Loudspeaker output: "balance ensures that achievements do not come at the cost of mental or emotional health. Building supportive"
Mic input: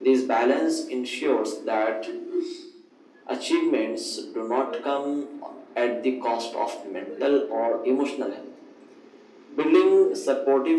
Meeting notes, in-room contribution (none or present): none